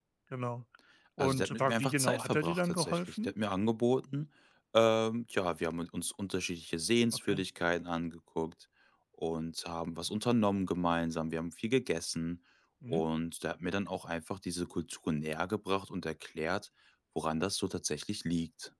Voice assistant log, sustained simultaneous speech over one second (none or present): present